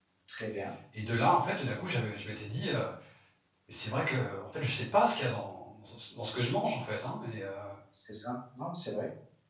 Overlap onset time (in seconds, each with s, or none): none